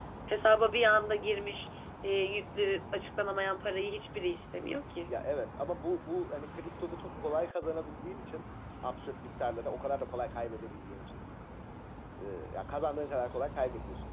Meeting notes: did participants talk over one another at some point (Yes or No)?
No